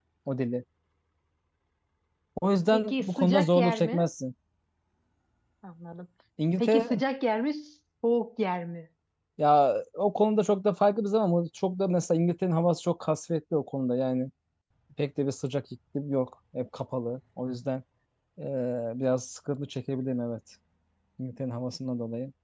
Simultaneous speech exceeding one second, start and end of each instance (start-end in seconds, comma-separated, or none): 2.7-4.0